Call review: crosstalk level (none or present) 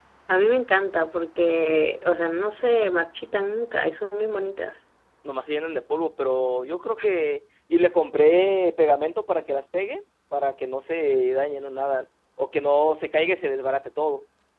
none